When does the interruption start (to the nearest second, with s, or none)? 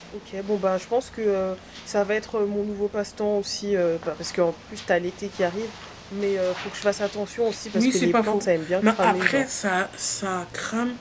8 s